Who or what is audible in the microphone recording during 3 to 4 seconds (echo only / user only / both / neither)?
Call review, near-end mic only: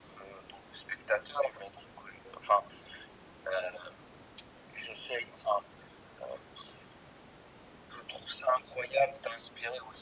echo only